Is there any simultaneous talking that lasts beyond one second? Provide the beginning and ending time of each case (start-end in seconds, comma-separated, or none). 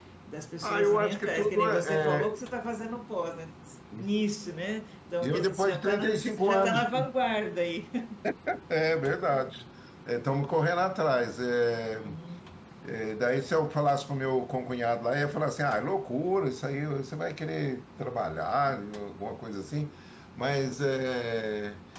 0.6-2.3, 5.2-6.9